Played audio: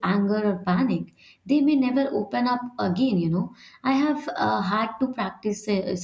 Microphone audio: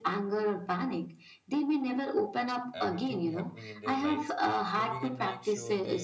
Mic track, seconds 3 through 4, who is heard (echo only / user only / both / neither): both